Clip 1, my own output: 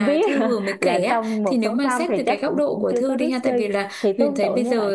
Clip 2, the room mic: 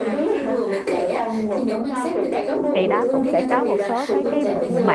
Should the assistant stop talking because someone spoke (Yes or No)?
Yes